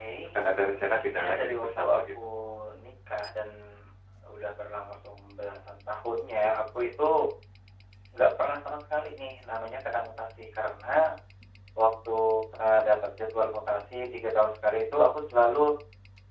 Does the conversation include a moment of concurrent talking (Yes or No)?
Yes